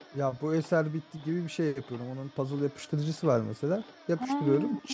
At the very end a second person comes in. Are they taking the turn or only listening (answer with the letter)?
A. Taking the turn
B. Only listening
B